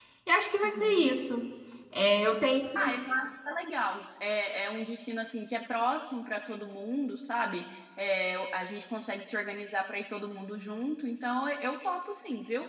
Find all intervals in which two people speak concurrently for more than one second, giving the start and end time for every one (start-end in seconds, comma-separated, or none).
none